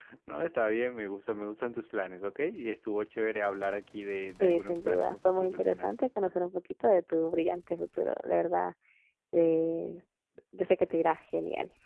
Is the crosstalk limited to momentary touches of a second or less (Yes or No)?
No